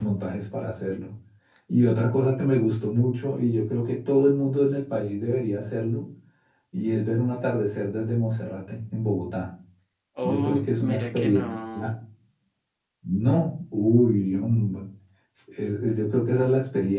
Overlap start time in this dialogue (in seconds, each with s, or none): 10.2 s